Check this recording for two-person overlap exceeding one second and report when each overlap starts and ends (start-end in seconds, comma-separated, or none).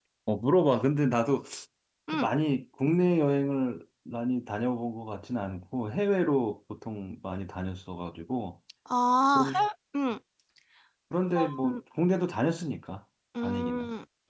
none